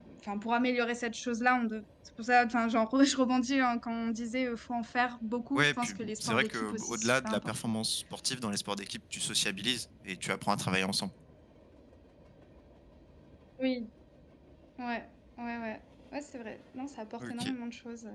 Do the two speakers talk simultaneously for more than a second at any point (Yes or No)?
Yes